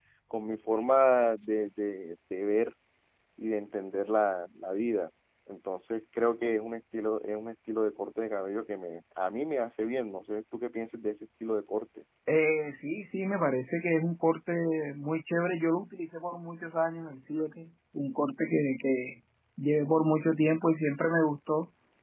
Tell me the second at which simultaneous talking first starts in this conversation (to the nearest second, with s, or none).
none